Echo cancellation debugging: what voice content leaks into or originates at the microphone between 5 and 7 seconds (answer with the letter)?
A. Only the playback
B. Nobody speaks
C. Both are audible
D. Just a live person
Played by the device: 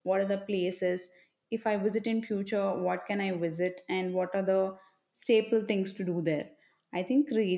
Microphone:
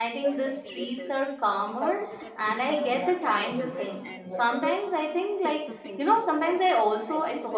C